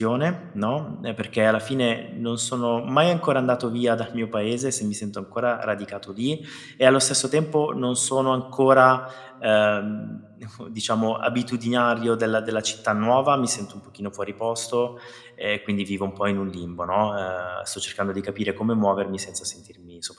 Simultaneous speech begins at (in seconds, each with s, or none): none